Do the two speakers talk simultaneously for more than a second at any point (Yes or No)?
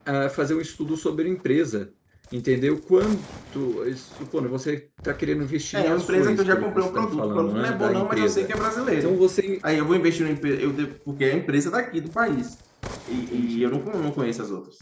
Yes